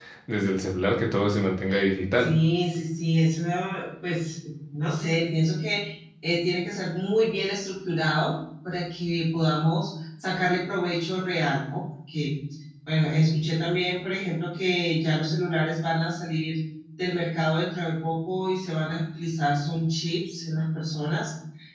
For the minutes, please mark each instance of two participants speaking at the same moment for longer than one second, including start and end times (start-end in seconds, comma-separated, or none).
none